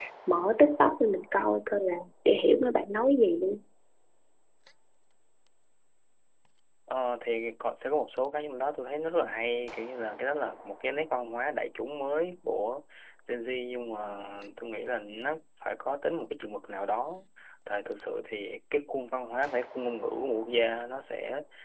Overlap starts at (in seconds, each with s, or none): none